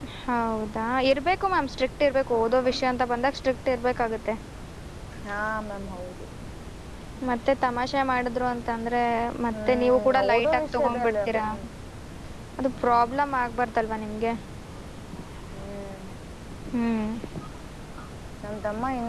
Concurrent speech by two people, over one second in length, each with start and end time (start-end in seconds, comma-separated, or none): 9.7-11.4